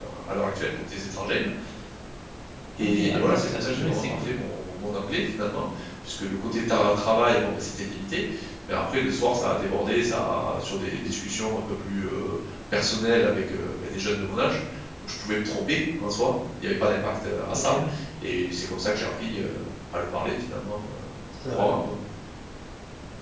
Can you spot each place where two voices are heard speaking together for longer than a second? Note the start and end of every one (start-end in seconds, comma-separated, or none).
2.8-4.3